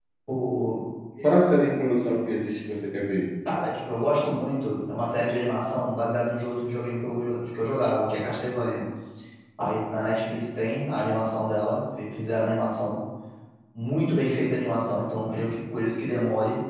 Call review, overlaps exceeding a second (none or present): none